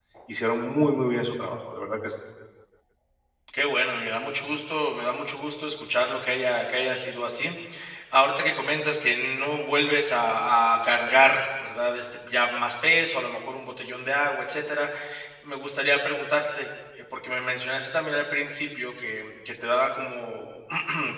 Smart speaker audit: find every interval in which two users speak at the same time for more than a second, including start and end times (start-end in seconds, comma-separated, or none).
none